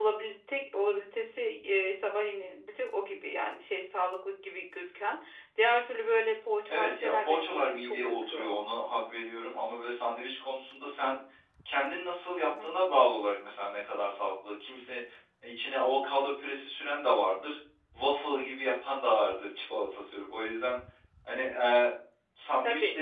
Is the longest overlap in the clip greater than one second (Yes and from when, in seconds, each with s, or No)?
Yes, from 6.7 s